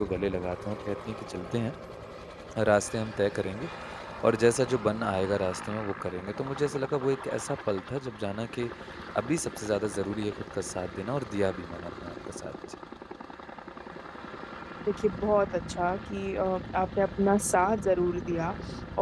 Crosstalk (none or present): none